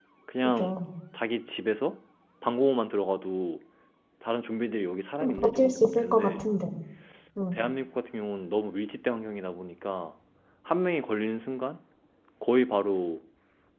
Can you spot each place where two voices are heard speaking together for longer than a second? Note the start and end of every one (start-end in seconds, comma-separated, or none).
5.2-6.5